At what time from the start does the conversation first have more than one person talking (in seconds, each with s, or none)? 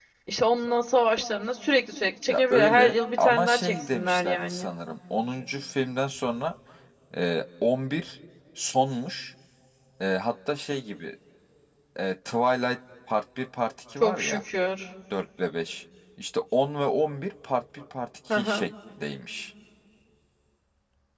2.3 s